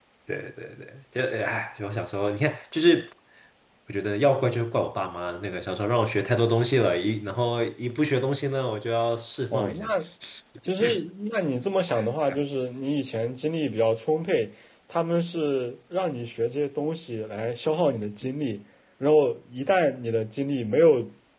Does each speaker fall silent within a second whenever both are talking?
Yes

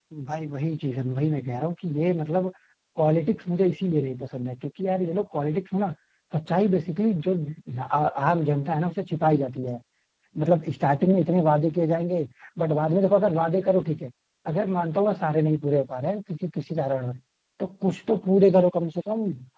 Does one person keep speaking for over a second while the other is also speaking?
No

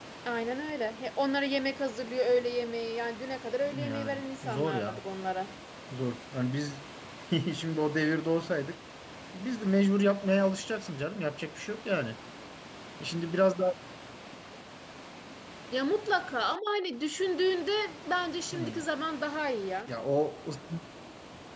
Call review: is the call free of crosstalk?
No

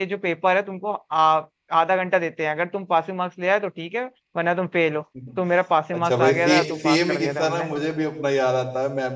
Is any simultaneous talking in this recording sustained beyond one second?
Yes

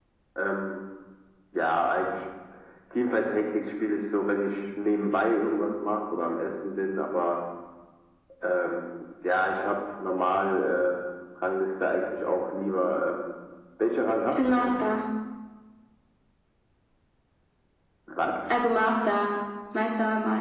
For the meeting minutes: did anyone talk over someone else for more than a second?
No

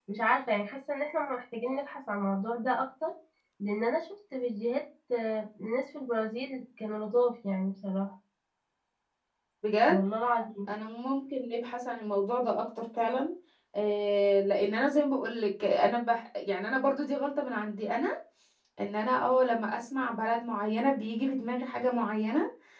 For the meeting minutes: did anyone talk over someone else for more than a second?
No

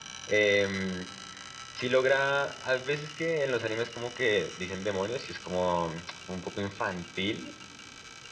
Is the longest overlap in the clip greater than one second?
No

